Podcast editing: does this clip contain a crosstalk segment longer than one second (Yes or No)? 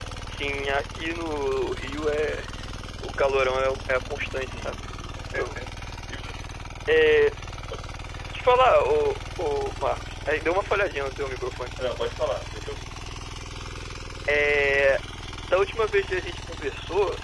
No